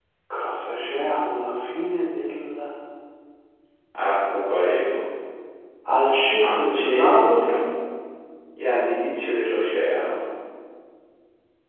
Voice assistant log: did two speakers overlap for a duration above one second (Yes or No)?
Yes